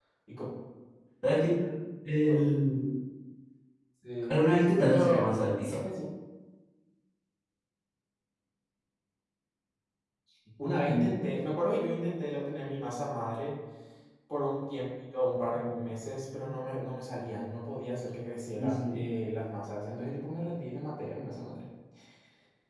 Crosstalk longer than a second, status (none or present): none